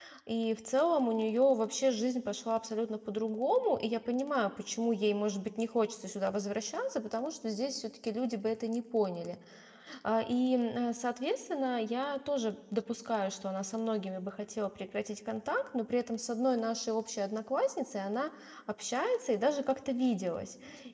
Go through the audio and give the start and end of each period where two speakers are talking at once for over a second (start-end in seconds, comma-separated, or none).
none